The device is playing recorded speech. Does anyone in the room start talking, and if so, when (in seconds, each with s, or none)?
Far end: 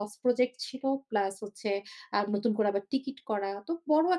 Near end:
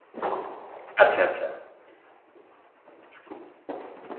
1.0 s